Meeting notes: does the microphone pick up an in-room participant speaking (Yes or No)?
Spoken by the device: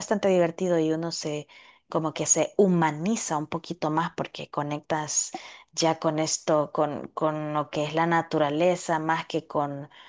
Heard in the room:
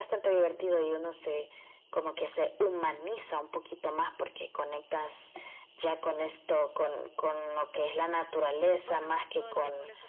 Yes